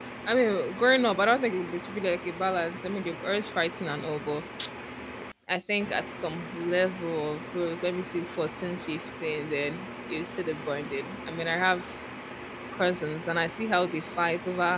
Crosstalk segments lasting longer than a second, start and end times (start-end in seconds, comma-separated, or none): none